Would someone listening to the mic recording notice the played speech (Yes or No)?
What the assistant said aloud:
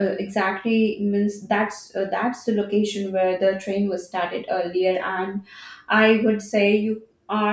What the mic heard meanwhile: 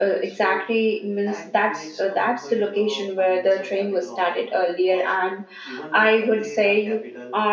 Yes